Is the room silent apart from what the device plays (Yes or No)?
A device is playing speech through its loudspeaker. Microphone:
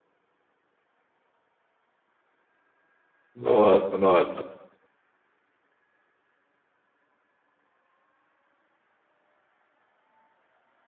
No